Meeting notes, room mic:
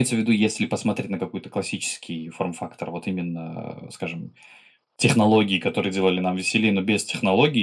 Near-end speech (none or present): none